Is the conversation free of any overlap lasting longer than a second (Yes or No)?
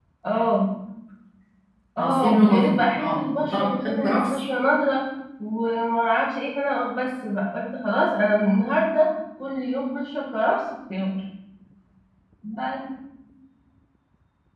No